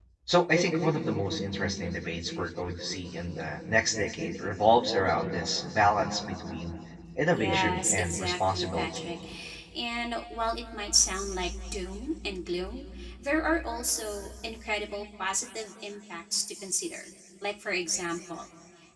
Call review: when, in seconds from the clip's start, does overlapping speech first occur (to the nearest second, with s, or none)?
7 s